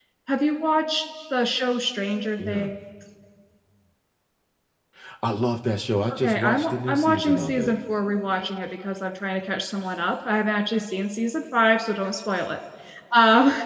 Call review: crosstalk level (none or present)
present